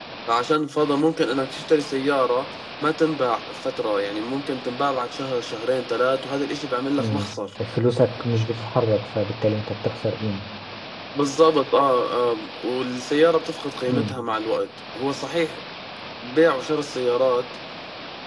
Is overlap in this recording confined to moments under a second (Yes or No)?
Yes